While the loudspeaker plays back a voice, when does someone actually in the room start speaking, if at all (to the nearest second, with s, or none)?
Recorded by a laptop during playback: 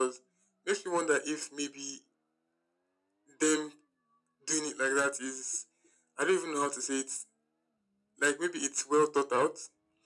none